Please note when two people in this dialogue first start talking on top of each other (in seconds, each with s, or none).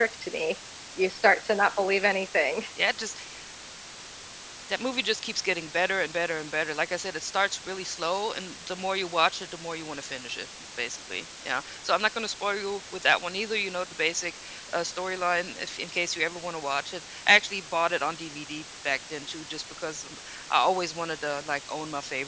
none